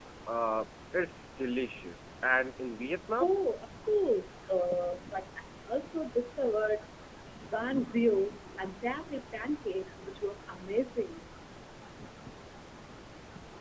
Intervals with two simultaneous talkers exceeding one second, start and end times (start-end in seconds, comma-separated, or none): none